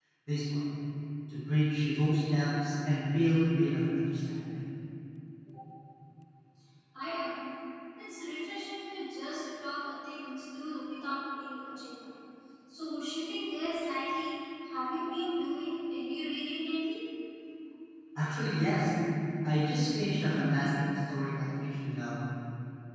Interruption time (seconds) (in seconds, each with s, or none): none